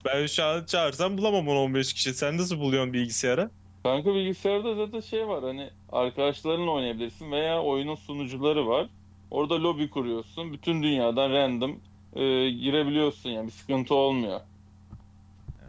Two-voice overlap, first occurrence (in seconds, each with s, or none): none